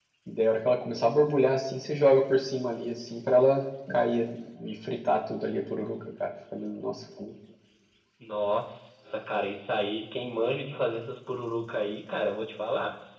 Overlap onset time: none

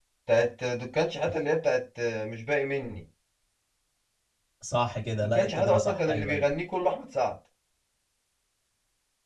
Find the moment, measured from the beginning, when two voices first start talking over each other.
5 s

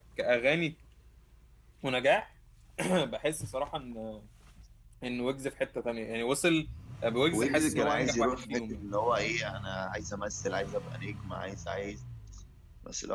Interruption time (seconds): 7 s

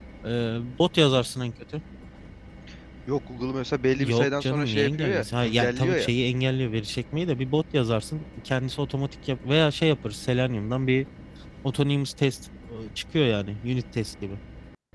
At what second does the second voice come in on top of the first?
4 s

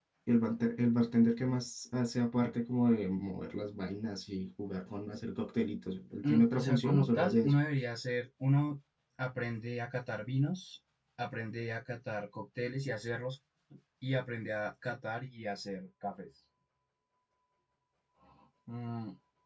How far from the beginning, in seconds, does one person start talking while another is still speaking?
6 s

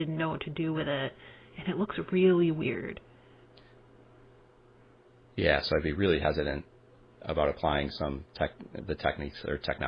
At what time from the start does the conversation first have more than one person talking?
none

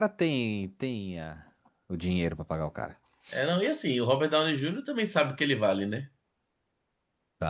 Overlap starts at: none

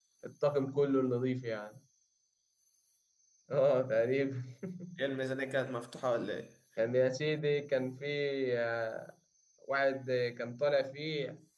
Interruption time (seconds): none

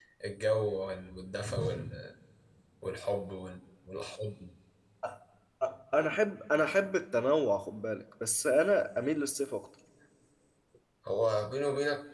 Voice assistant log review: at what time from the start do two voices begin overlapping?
none

